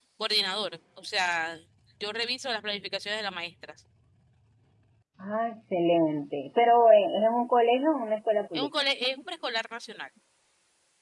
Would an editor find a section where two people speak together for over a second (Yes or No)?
No